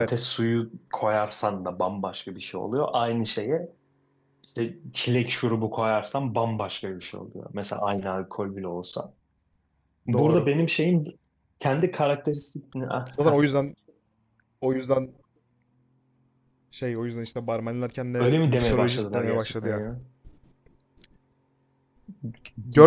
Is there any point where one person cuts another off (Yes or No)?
Yes